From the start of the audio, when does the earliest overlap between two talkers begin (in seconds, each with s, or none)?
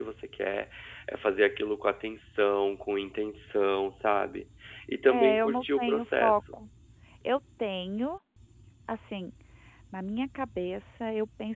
5.1 s